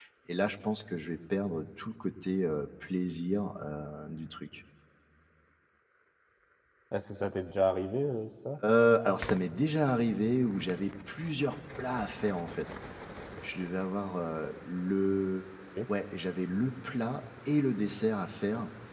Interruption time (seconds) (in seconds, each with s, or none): none